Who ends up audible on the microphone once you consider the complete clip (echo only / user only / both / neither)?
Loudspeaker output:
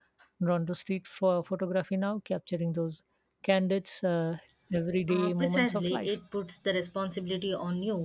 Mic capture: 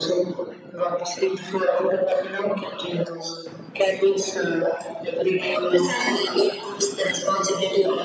echo only